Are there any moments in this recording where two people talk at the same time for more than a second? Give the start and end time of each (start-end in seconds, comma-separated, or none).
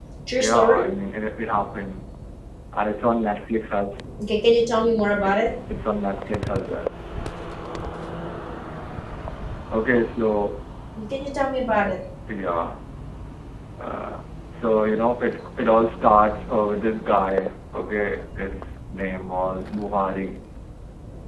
none